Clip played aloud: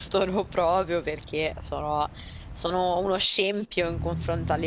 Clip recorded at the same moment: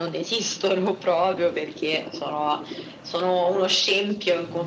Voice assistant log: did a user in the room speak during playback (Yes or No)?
No